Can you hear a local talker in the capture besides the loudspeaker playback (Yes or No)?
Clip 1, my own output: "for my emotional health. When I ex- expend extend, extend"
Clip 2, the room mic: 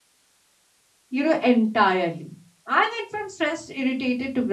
Yes